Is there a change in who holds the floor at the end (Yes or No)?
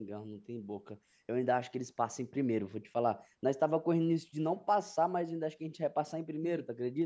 Yes